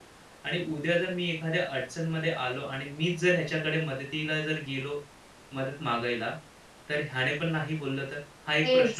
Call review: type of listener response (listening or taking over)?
taking over